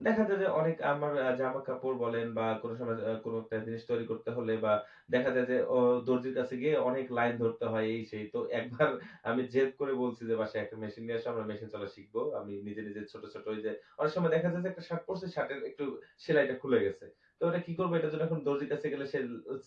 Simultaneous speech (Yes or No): No